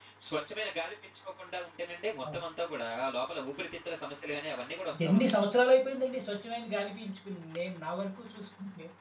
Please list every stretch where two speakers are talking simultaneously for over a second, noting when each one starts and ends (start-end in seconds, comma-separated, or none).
none